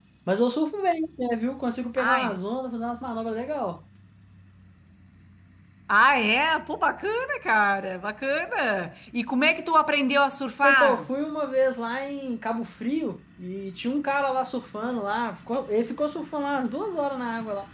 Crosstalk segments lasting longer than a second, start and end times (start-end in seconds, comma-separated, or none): none